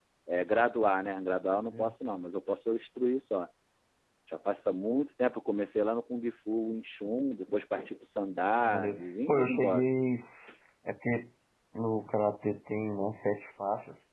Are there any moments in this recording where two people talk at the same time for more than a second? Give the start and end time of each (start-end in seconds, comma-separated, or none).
8.6-9.8